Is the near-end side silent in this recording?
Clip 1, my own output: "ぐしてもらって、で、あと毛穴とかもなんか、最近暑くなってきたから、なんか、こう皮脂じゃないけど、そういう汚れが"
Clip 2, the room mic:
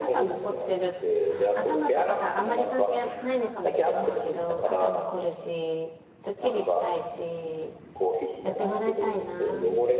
No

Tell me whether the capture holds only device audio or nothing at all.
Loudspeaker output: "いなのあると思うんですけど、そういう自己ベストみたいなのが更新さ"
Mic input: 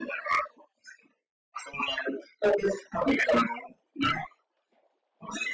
Yes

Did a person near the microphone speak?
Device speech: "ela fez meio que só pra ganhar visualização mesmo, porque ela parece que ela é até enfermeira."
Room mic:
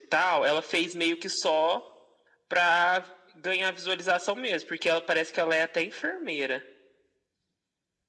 No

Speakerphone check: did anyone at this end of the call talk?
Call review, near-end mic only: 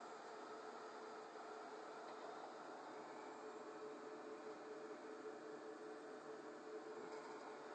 No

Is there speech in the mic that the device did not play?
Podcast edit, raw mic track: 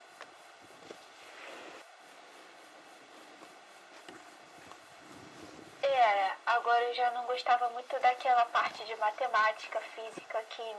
No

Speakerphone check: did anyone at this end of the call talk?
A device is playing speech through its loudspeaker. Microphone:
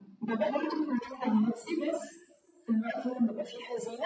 No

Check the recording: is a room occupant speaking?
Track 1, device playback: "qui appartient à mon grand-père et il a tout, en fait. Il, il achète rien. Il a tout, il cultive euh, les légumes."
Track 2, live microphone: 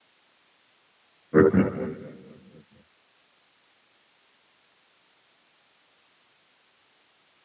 Yes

